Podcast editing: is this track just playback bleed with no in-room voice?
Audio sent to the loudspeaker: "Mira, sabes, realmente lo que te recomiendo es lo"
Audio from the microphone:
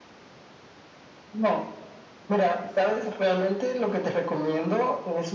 Yes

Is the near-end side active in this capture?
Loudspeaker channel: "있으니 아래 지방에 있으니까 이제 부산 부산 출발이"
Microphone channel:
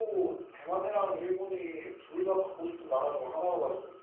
Yes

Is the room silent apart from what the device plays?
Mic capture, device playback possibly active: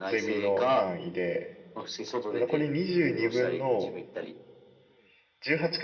No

